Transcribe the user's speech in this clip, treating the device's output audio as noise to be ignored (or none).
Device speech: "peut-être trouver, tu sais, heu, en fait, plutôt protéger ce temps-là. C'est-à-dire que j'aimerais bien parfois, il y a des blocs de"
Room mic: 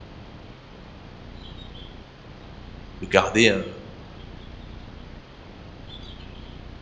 de garder un